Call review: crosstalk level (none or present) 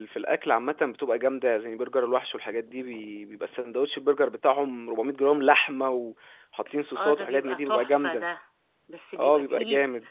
present